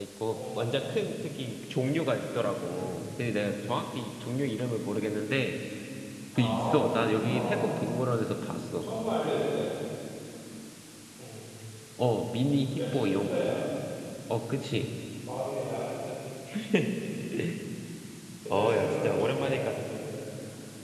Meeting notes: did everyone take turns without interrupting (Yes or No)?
No